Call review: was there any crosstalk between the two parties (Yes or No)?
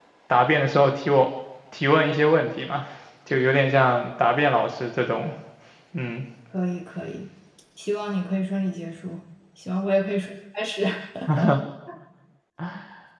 No